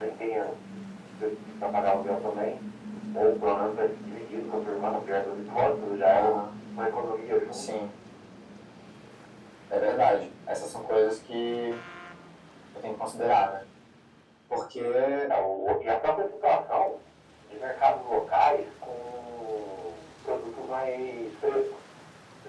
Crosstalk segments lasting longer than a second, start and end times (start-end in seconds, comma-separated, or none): none